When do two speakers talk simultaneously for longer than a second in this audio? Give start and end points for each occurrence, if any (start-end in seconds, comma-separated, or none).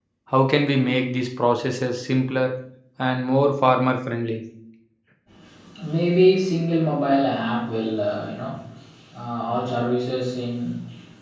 none